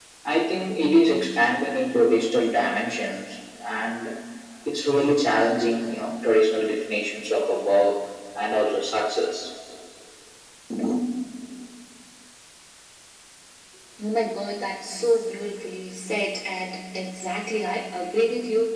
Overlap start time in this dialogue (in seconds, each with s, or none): none